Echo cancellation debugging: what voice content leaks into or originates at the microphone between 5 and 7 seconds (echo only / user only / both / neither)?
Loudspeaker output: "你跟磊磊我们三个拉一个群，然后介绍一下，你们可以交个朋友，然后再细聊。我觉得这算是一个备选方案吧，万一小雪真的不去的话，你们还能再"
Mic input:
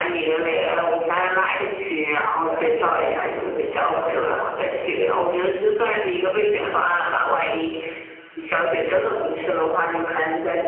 echo only